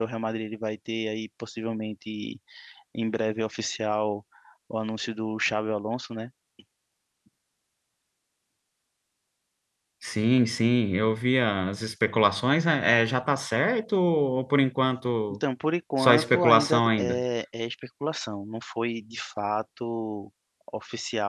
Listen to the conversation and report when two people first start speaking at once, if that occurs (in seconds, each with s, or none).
16.0 s